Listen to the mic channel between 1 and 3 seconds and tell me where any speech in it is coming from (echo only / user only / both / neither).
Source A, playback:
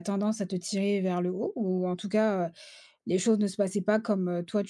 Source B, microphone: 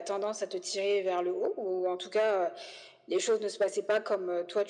echo only